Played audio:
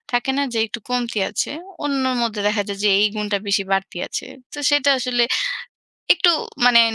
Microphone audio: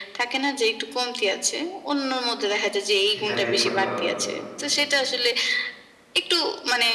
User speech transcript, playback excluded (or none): সেটা বের করতে হবে।